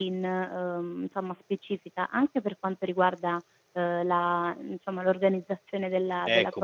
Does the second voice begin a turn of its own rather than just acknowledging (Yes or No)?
Yes